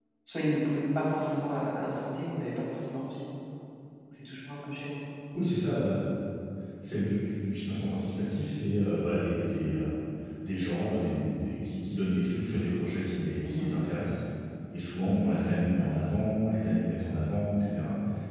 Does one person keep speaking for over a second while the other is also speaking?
No

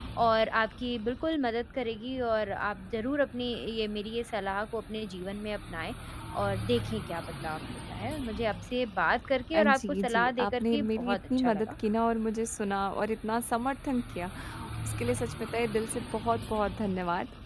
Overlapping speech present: Yes, from 9.5 s

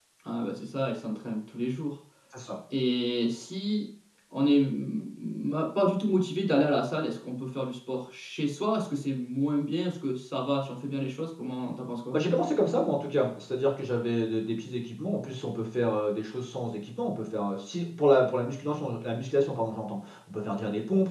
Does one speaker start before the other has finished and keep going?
No

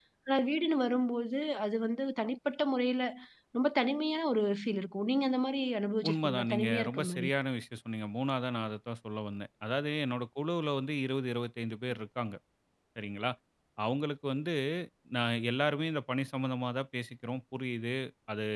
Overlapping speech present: Yes, from 6.0 s

